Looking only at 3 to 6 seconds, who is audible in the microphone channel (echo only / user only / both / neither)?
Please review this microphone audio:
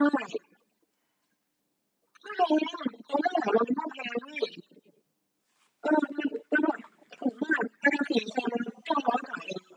echo only